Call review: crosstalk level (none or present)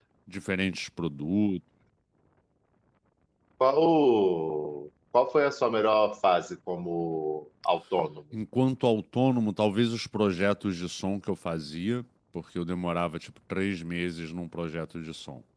none